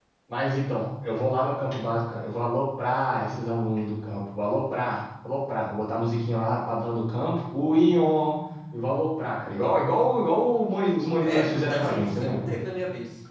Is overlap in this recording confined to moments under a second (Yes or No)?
No